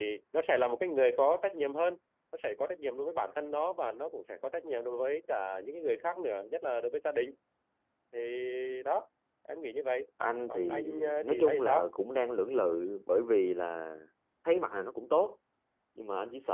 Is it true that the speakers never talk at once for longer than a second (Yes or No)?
No